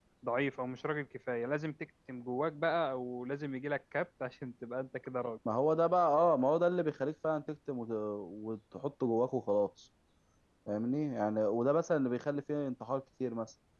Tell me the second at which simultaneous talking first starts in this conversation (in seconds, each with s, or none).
none